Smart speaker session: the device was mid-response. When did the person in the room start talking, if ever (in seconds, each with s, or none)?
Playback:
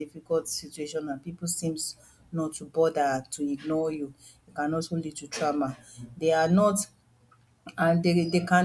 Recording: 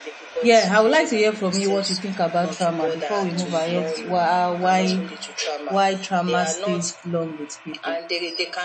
0.4 s